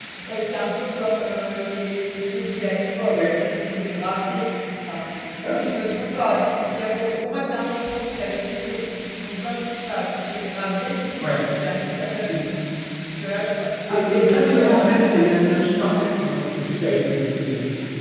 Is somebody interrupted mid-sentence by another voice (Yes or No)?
Yes